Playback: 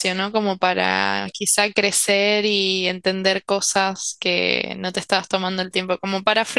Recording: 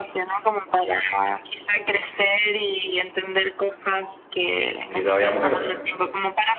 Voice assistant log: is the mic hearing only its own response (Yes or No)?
No